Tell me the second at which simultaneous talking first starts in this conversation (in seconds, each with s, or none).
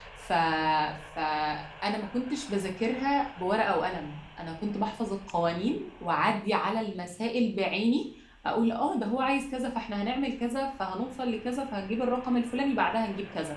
none